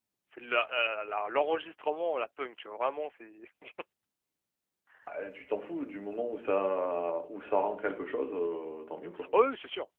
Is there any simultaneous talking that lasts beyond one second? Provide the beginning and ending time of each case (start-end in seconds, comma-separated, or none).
none